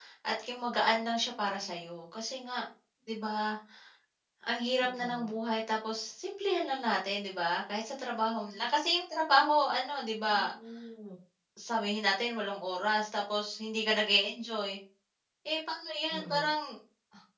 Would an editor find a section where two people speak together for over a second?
No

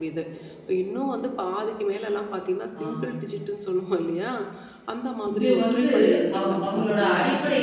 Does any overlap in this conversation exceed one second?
Yes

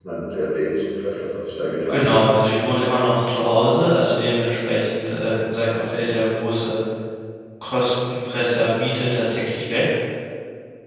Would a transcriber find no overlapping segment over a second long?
Yes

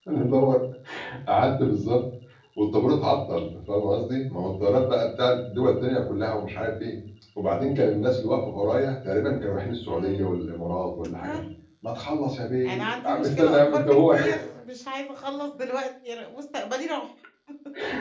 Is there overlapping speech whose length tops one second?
Yes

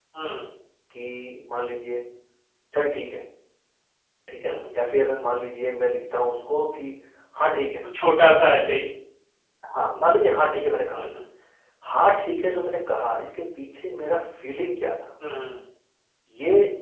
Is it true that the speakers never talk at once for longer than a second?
Yes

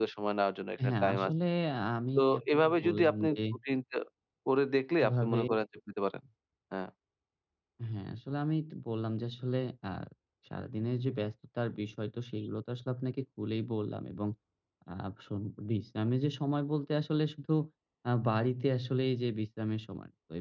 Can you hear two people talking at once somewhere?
Yes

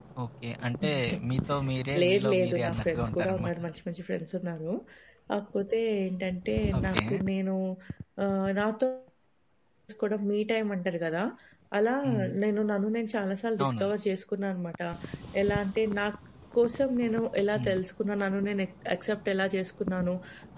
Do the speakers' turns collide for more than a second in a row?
Yes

